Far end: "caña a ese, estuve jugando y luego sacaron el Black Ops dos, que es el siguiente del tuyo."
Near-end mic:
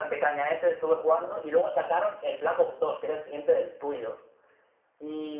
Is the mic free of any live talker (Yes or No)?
Yes